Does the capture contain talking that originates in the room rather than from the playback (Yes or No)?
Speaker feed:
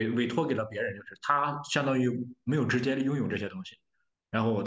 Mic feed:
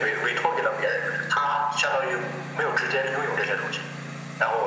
No